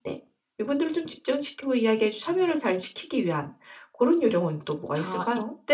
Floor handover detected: Yes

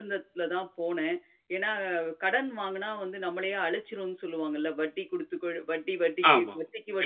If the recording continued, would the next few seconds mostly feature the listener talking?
Yes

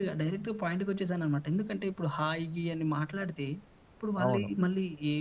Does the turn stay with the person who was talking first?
Yes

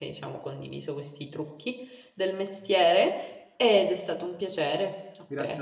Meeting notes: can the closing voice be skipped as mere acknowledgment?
No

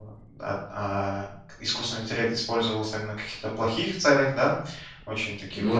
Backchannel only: Yes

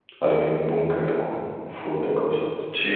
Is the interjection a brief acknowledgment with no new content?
No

